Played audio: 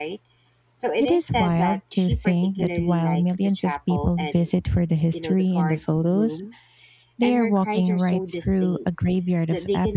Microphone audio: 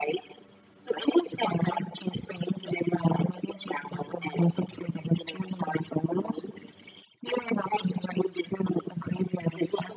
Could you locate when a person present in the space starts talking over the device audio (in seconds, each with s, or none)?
none